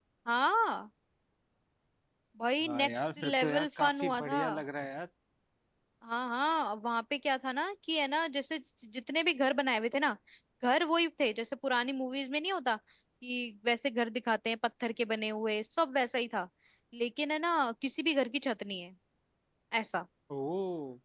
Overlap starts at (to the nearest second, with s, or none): 3 s